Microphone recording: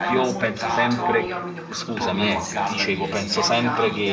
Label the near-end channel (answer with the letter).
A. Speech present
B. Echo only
A